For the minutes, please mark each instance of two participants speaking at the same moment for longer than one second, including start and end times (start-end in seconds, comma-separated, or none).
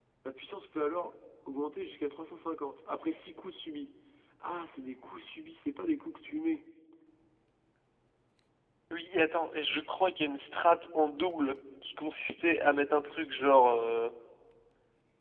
none